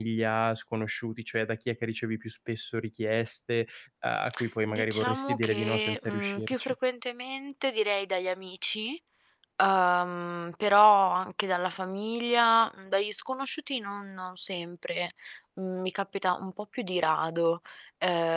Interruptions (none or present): present